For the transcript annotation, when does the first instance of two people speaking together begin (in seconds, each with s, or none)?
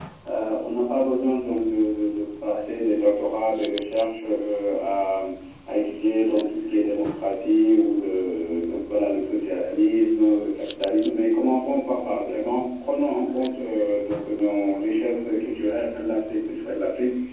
none